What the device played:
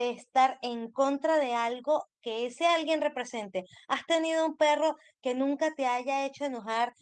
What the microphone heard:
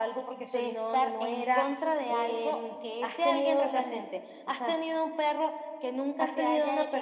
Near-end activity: present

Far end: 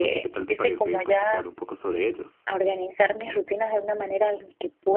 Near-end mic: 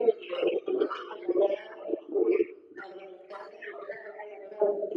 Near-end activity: none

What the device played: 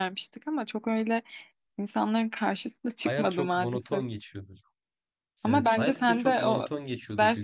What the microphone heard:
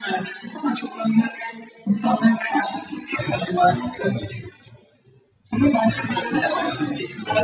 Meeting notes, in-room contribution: none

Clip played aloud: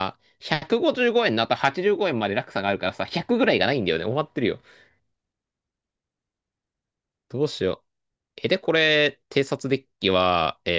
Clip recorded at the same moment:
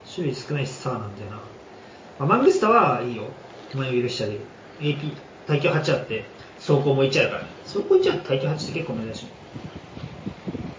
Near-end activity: present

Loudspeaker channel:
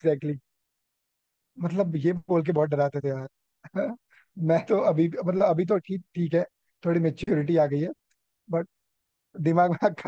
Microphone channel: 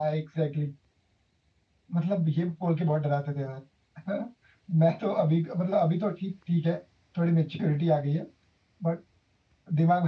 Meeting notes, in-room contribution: none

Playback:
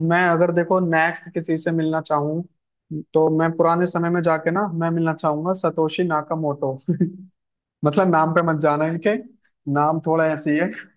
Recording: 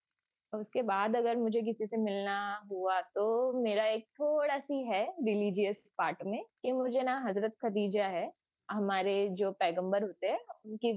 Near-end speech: present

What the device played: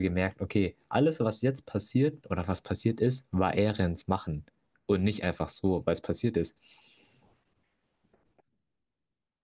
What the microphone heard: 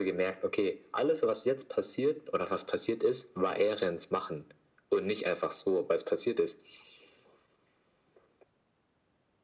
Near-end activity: none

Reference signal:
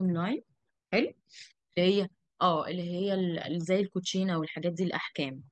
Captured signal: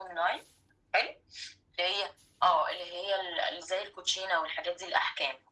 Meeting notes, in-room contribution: none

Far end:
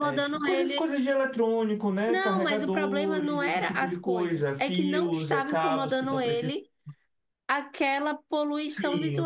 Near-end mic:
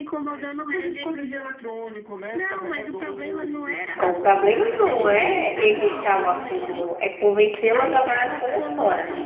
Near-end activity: present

